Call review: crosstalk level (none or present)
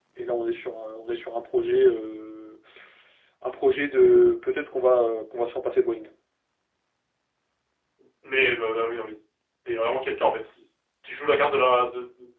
none